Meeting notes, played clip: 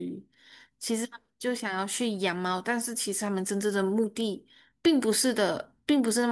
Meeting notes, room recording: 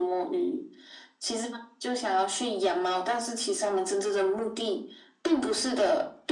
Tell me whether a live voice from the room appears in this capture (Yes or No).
No